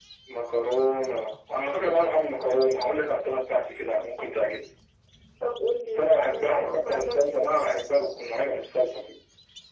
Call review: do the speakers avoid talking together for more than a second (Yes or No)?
No